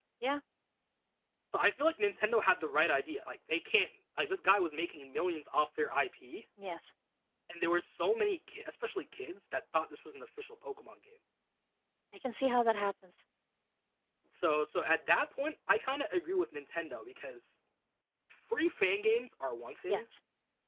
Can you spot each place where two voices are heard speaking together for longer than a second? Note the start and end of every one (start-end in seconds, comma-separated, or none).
none